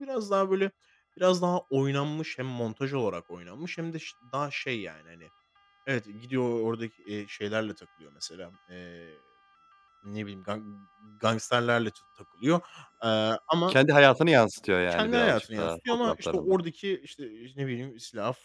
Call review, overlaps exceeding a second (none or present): present